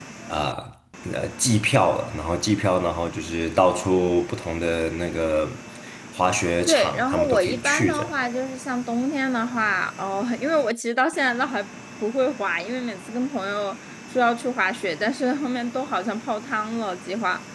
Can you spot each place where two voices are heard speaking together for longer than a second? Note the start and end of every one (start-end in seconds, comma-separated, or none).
6.7-8.1